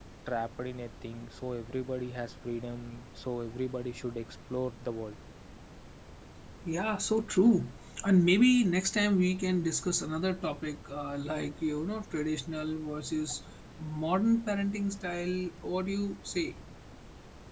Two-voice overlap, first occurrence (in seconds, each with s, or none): none